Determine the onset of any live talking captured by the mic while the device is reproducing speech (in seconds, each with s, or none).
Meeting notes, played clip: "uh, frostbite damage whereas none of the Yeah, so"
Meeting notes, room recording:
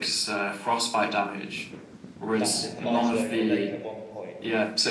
2.3 s